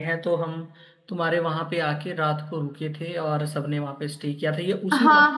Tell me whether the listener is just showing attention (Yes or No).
No